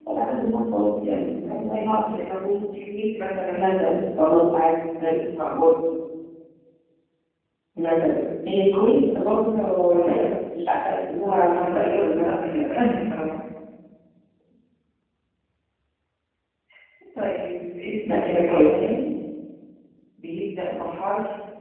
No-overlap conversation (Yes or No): No